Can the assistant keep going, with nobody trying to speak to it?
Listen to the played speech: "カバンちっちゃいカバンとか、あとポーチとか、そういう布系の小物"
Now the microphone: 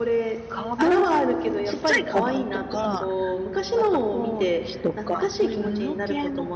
No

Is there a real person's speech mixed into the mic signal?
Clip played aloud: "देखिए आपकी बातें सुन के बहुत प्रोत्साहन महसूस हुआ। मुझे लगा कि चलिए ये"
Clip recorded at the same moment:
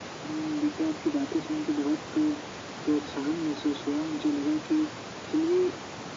No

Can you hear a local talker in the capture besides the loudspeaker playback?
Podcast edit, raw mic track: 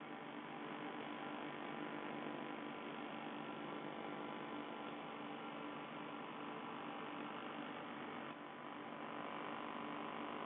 No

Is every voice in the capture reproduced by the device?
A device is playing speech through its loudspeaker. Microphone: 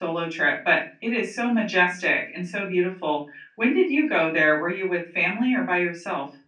No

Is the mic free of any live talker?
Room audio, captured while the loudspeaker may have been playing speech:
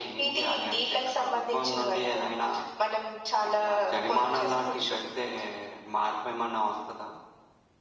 Yes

